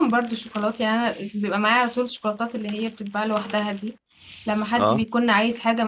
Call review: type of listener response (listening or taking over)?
listening